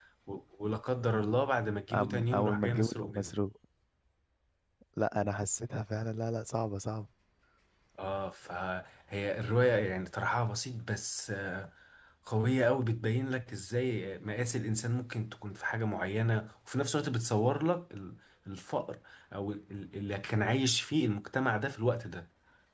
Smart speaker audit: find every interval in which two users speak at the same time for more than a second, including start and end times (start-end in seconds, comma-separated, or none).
1.9-3.3